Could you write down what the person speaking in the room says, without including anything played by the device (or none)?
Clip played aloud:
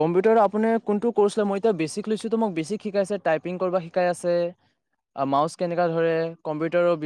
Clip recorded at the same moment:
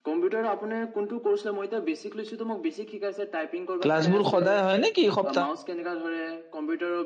ক্লাছ বোৰ সদায় হয়, নেকি? সপ